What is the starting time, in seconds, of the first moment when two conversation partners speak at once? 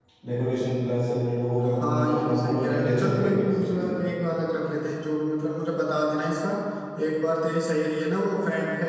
1.6 s

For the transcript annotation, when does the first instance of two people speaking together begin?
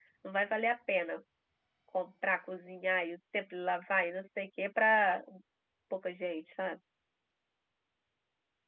none

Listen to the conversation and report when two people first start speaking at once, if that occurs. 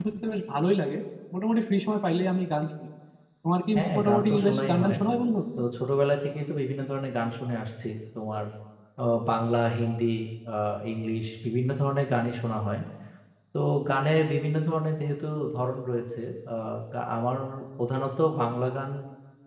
3.7 s

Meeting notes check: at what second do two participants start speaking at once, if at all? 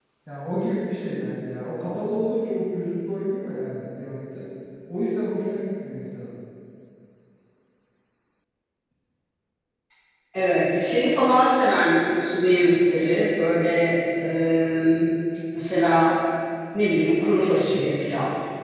none

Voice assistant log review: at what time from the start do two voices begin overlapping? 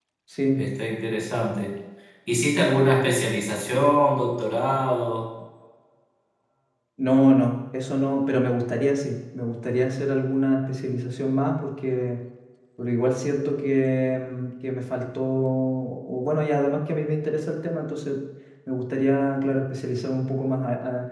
none

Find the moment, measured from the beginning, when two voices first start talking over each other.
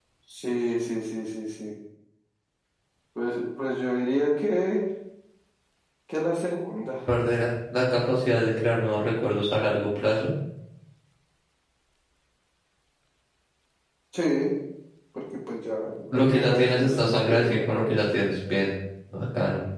16.1 s

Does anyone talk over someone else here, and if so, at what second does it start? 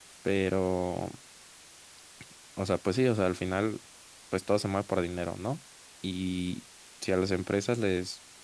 none

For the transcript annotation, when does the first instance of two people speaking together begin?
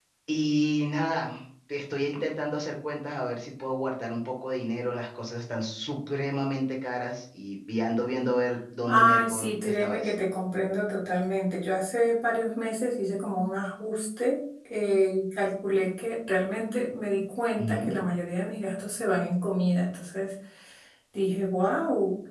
8.9 s

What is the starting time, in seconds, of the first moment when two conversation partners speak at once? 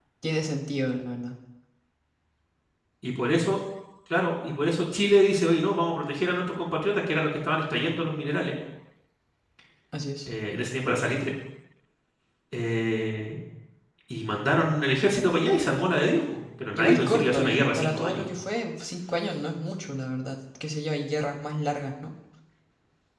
16.7 s

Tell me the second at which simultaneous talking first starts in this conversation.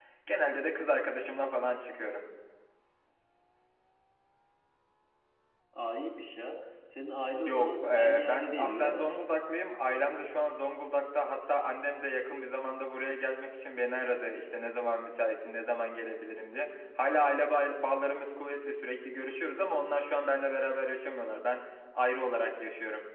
7.5 s

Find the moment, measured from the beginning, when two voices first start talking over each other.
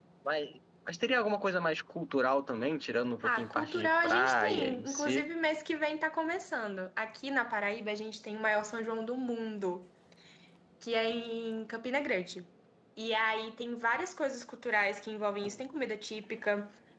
3.2 s

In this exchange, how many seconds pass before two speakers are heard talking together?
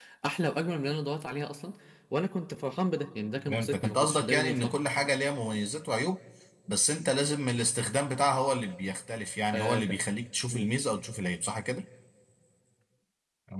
3.5 s

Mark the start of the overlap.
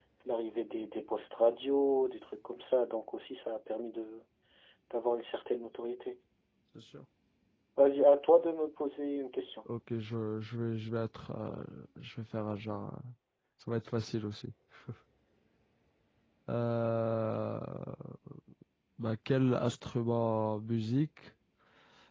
none

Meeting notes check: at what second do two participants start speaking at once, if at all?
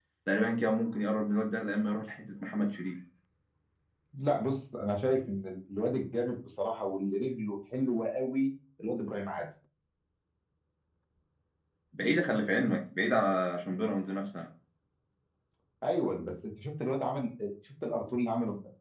none

